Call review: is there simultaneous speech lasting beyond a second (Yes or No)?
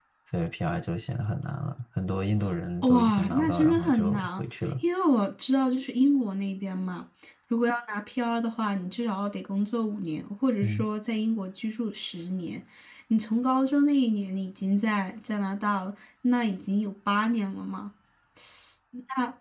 Yes